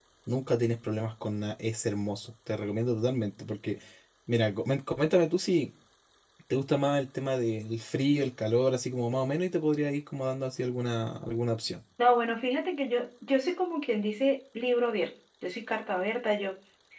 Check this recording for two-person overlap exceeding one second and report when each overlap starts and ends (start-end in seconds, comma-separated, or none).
none